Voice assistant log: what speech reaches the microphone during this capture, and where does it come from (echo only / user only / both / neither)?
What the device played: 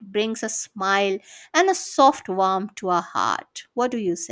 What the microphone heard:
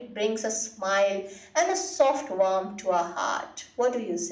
echo only